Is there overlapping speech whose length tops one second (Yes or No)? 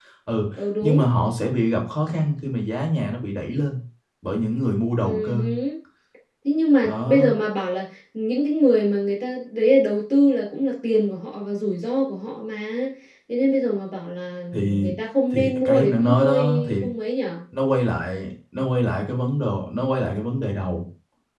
Yes